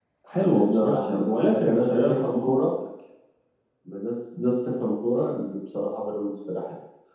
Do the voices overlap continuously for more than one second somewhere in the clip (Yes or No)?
Yes